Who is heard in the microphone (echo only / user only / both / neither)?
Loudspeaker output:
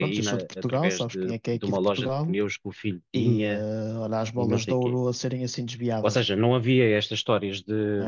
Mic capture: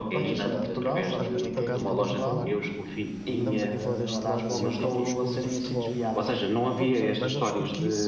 both